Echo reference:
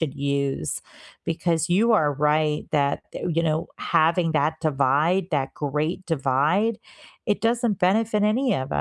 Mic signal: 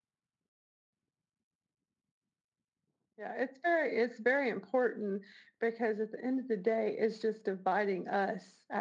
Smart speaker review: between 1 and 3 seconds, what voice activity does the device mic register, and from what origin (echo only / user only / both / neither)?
neither